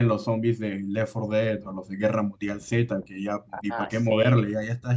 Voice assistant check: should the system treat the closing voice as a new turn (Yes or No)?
No